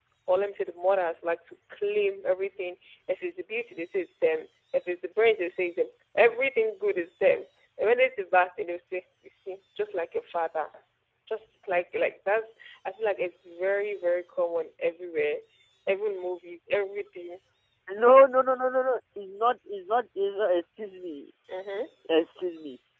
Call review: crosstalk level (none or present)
none